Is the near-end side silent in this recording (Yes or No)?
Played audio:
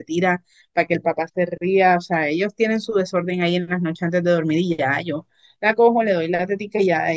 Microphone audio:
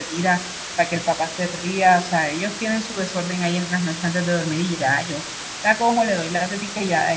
Yes